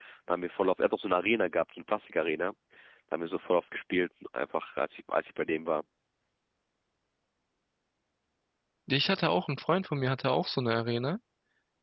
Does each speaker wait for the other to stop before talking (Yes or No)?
Yes